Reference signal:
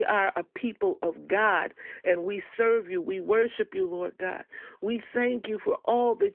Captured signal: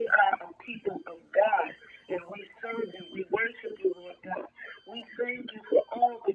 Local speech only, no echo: none

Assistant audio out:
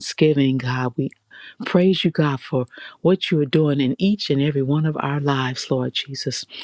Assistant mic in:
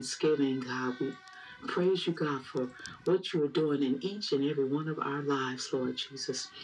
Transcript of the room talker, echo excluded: none

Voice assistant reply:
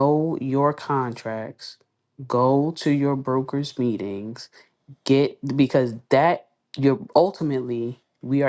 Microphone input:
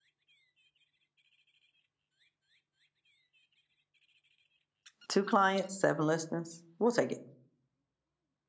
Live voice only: two clients, seven listings. We'll take it

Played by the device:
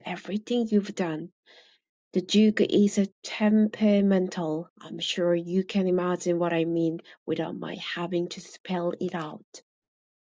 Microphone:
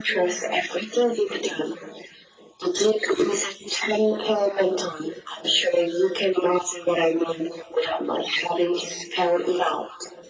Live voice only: none

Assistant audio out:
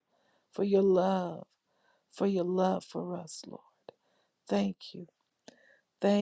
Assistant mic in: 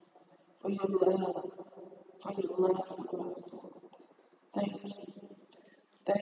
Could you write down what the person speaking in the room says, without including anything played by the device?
none

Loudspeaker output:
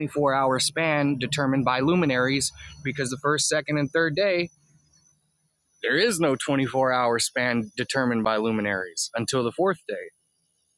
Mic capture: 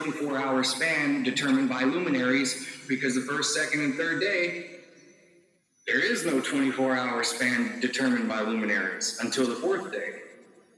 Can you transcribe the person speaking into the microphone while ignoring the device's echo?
none

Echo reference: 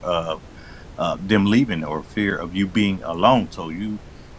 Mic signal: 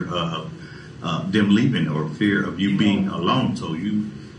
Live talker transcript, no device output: you know

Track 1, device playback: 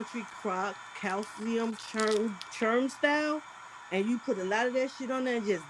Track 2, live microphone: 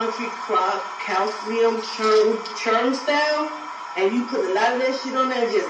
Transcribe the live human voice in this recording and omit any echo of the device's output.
none

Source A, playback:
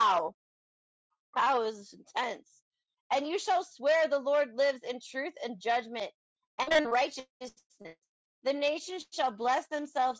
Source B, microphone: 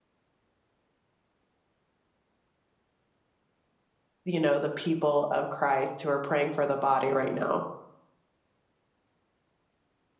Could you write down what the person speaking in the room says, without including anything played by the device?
you know, the people of Christ, who are praying for the body right now.

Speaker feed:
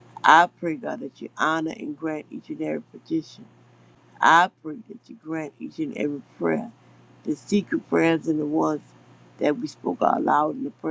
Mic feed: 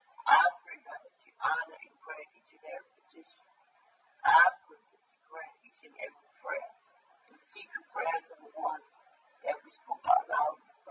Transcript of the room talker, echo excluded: none

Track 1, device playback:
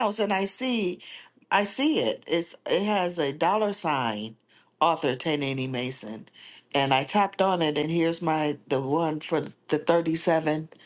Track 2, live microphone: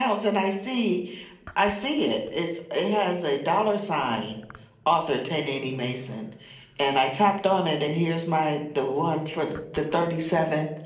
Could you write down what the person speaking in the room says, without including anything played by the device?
none

